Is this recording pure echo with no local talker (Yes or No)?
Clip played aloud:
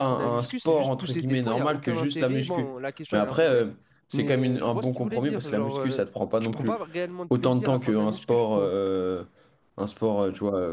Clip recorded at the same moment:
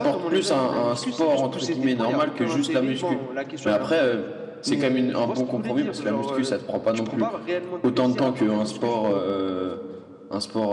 Yes